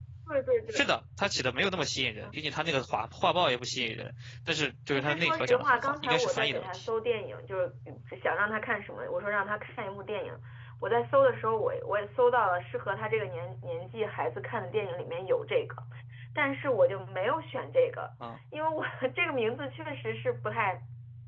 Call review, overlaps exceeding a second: present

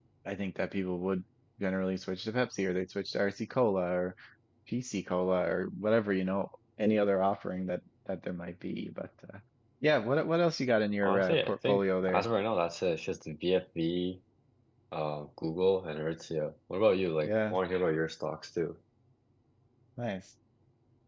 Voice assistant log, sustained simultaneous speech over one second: present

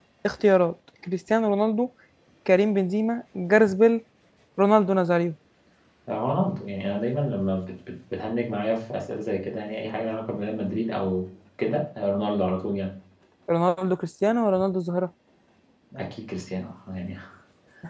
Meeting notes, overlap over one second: none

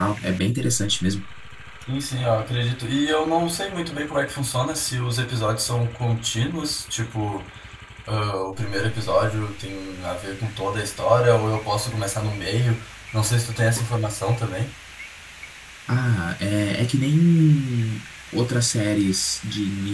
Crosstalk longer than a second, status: none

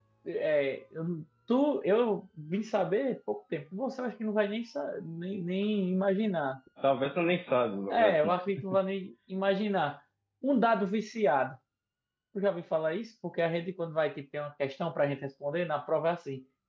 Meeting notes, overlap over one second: none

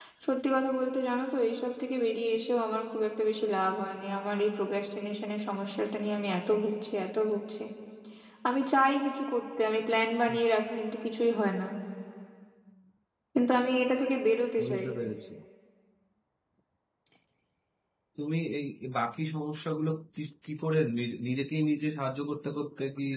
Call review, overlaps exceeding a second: none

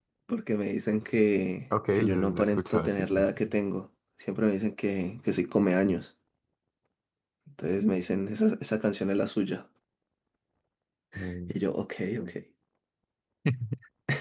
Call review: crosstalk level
present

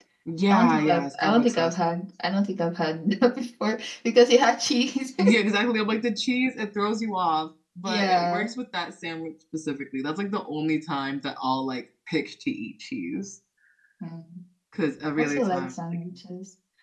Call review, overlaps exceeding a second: present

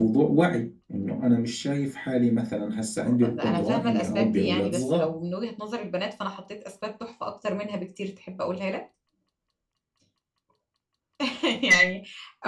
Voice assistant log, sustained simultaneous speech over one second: present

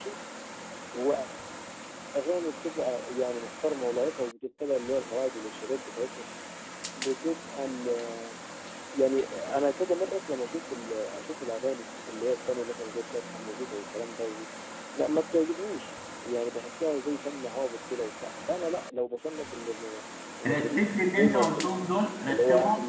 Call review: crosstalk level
present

